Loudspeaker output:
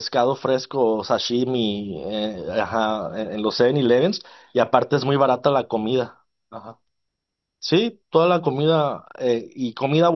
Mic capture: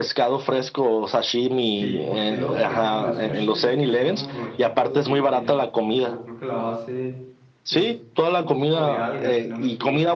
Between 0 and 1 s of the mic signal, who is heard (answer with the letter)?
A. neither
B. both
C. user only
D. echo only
D